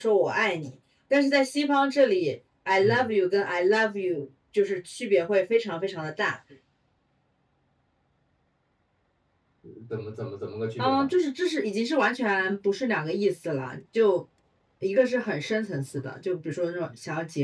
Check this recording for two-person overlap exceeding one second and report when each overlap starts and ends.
none

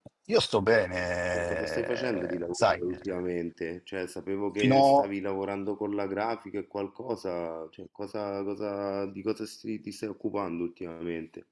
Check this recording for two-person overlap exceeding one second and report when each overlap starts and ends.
1.3-3.2

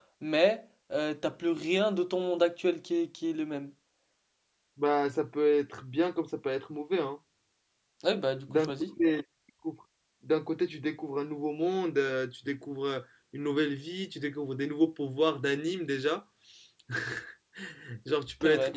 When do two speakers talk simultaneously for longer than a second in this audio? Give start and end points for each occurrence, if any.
none

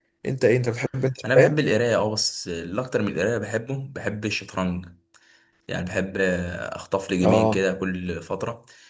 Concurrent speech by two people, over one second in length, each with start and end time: none

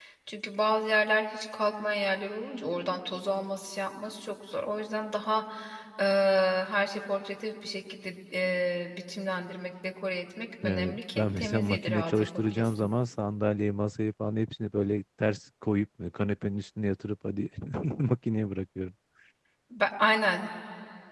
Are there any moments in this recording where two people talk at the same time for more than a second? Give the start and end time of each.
10.6-12.9

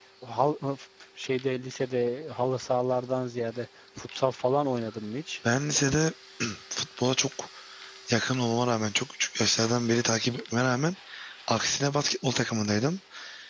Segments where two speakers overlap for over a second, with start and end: none

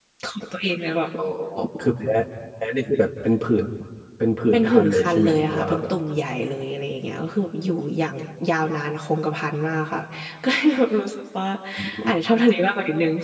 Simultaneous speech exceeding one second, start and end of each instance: 4.5-5.9

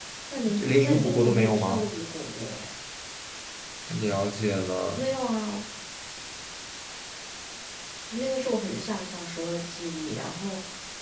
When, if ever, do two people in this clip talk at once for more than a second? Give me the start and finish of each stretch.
0.6-1.9

